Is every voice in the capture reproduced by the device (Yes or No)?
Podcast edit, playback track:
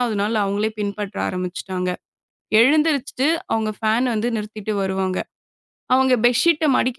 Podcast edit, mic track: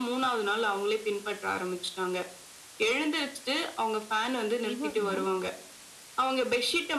No